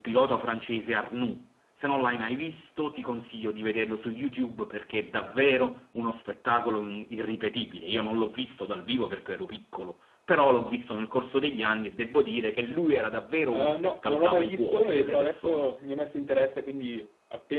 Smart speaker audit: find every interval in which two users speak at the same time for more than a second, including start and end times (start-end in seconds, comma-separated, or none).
13.5-15.7